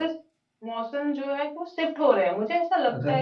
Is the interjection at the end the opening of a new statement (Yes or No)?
No